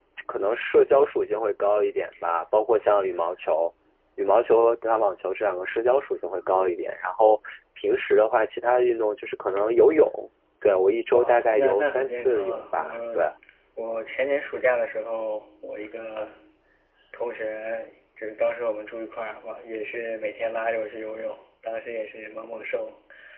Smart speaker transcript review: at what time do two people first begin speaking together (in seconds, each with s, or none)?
11.1 s